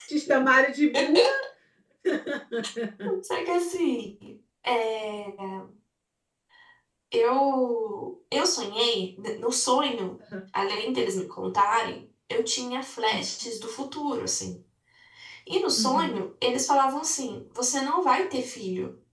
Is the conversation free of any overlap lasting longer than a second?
Yes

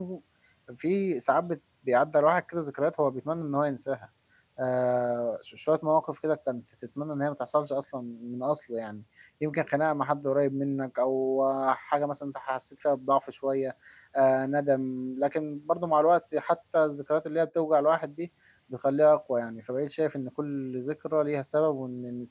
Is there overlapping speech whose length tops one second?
No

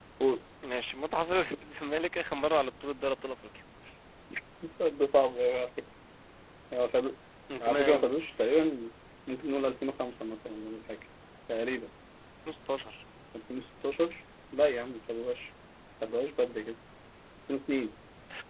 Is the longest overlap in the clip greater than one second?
No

